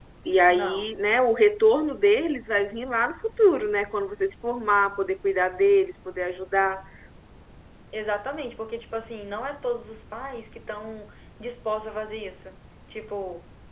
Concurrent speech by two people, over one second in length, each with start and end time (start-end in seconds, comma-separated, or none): none